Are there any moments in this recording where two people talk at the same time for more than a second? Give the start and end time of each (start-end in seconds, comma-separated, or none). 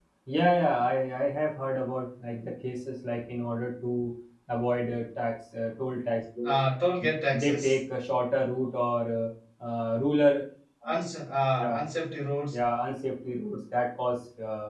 none